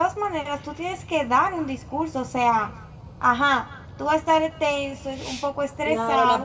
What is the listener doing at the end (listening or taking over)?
taking over